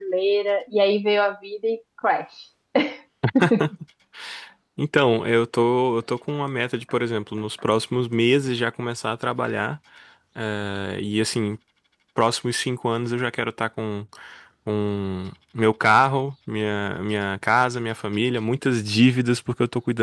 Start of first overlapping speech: none

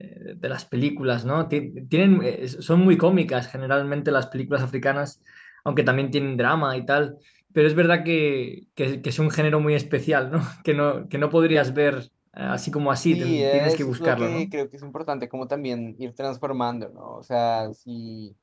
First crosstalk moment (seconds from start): 13 s

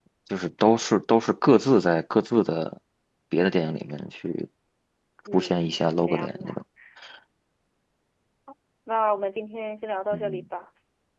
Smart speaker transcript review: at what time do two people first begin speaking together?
5 s

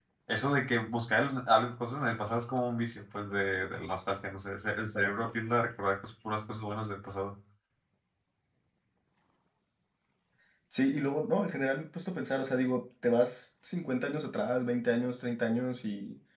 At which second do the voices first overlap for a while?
none

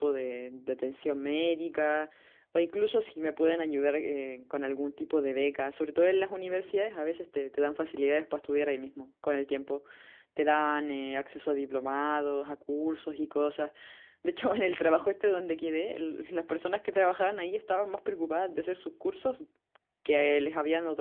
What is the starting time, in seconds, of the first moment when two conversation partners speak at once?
none

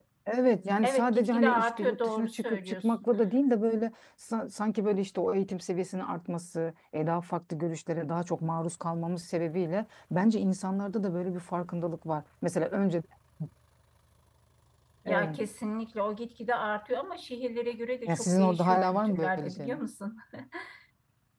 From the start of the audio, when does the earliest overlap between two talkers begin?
1 s

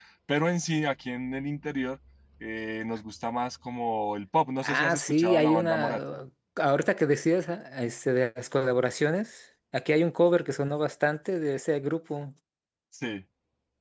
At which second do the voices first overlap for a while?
5 s

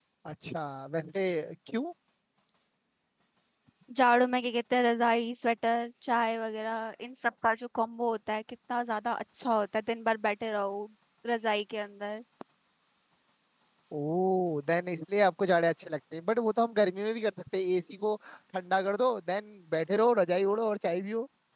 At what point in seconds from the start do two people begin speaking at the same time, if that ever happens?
none

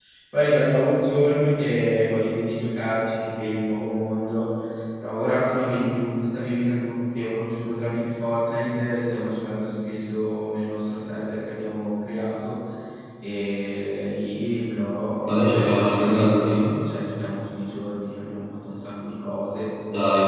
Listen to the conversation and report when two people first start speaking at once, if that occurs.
15 s

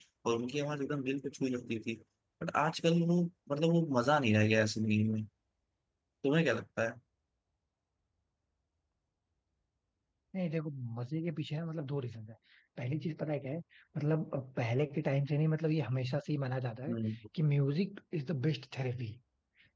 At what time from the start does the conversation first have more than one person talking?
none

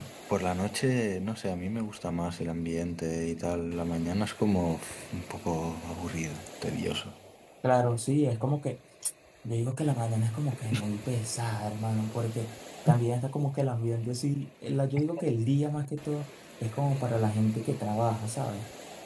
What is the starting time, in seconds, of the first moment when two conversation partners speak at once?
none

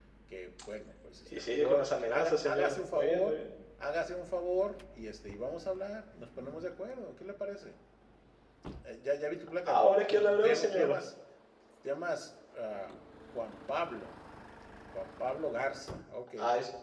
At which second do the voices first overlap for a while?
1 s

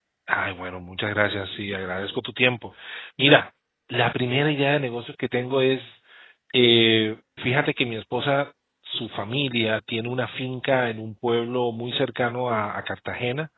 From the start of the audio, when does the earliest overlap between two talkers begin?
none

